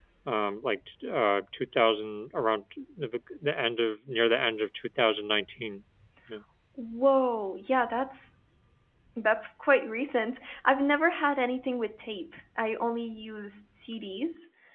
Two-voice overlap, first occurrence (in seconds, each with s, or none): none